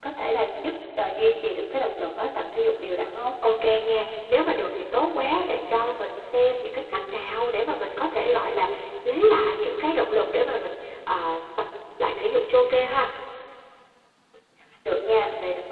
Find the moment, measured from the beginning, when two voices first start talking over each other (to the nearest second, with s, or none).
none